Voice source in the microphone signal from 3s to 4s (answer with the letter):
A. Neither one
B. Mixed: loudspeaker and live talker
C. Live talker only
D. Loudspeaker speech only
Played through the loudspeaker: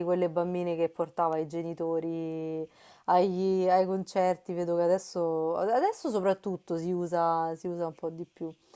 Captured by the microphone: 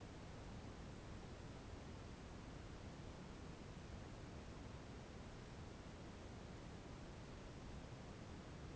A